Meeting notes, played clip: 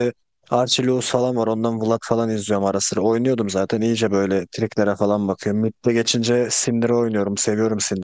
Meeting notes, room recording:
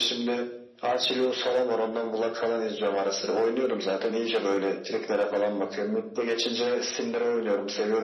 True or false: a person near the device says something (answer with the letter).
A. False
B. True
A